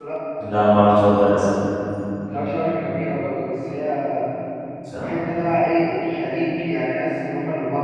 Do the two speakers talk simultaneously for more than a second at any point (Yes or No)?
No